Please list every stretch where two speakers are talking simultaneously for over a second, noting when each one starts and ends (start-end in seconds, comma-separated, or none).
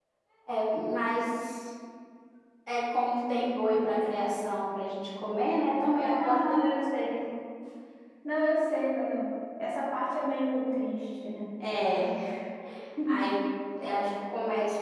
5.9-7.2